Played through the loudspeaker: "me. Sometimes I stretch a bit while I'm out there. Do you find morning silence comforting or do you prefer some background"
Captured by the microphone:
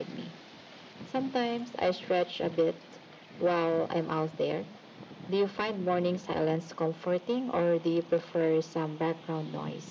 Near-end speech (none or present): none